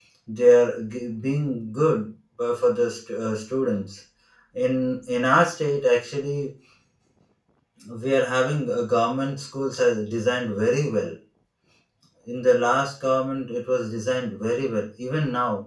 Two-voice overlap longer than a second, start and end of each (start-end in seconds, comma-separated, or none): none